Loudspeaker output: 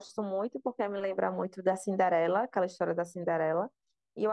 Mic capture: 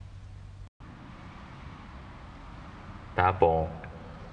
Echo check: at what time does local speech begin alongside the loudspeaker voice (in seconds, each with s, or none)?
3.1 s